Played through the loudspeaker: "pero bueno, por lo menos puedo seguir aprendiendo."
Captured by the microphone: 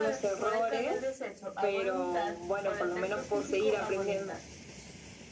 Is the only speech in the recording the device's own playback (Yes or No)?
No